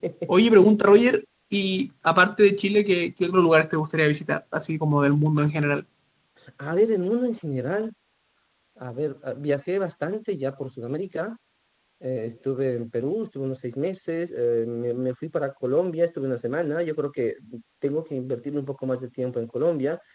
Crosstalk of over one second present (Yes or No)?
No